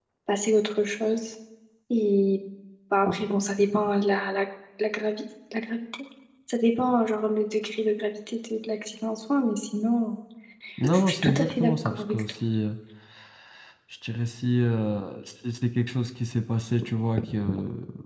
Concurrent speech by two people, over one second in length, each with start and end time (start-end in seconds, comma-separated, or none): 10.9-12.2